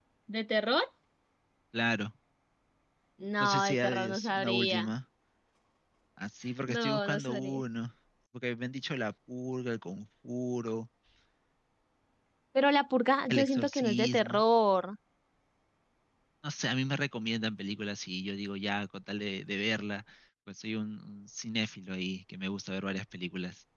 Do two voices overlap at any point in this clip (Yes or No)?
Yes